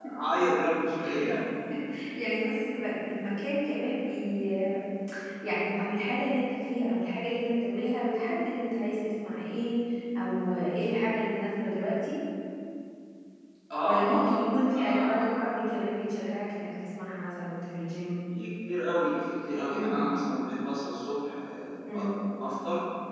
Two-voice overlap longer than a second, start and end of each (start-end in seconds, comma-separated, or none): 13.8-15.1